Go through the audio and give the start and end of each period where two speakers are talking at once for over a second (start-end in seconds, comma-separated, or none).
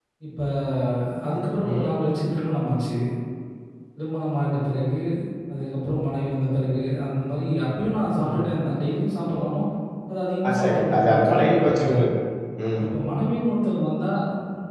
10.5-12.0